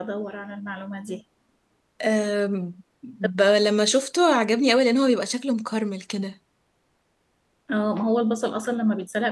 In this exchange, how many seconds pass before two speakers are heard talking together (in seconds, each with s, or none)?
none